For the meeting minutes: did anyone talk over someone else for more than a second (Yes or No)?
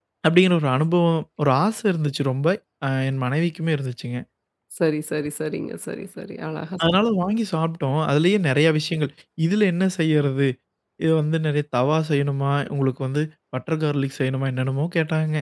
No